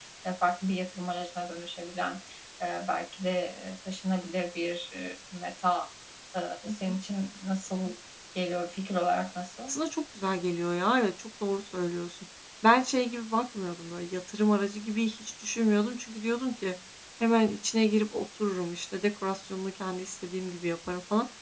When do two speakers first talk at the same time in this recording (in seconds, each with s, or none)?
none